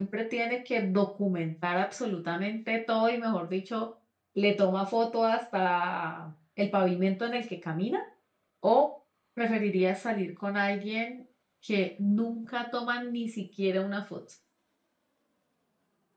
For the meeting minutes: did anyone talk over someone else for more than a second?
No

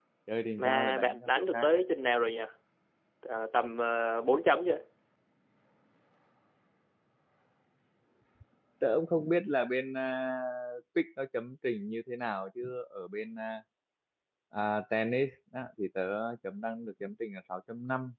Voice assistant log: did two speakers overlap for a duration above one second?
Yes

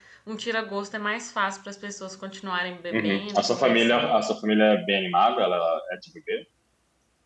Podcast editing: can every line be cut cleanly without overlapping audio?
No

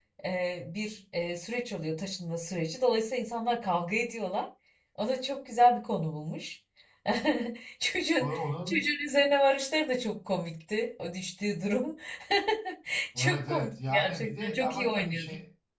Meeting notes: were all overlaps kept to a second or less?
No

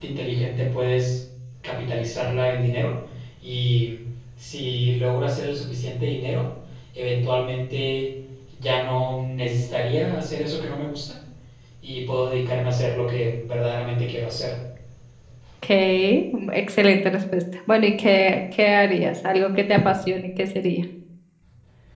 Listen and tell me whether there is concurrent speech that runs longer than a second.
No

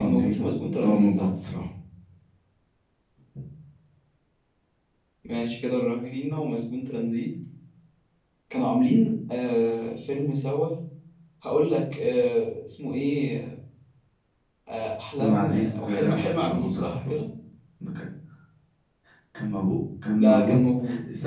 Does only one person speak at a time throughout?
No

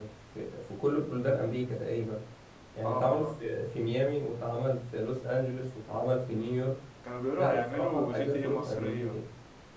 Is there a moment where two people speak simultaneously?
Yes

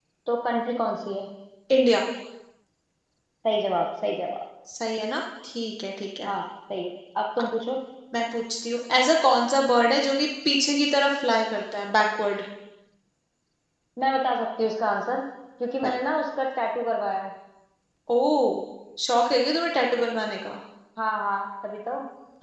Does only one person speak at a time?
Yes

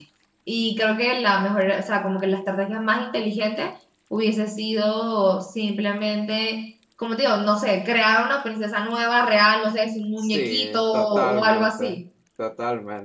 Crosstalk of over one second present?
Yes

